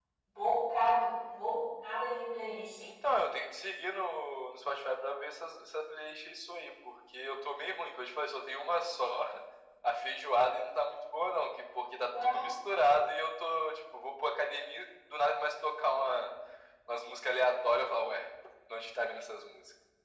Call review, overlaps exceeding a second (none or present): none